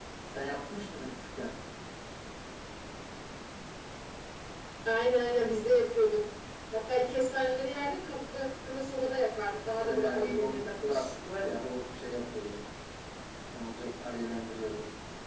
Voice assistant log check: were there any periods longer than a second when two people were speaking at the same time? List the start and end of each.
9.8-11.1

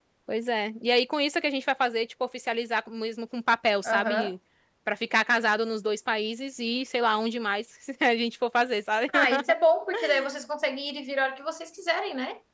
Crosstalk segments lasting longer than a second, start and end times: none

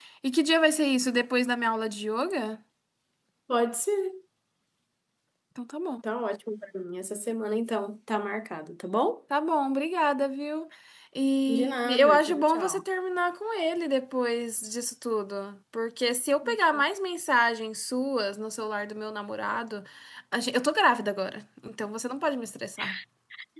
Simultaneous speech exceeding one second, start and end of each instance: 11.5-12.8

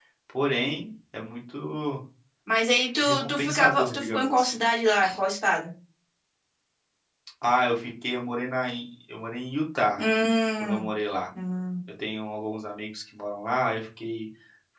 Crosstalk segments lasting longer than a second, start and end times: 3.0-4.5

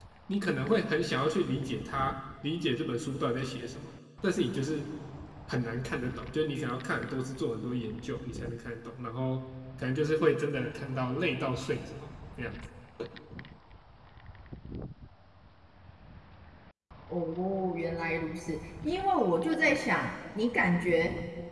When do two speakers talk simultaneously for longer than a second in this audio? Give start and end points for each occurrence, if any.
none

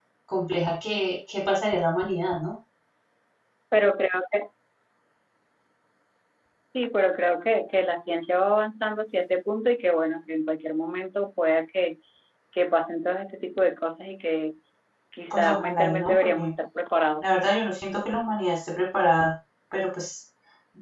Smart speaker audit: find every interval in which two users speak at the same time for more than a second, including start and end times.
15.3-16.5

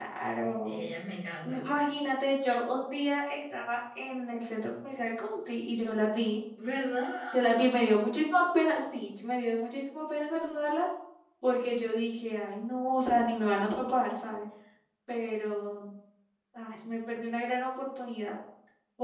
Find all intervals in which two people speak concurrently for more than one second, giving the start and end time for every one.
none

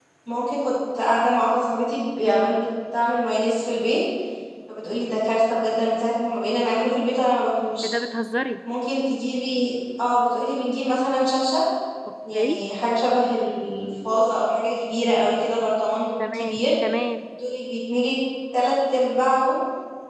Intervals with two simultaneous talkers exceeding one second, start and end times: none

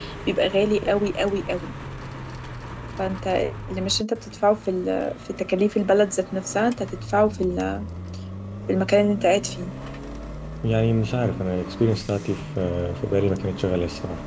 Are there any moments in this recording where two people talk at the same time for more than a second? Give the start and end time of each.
none

